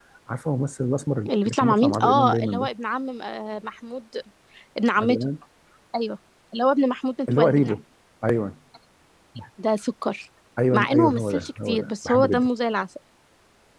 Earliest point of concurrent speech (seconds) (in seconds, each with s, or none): 1.3 s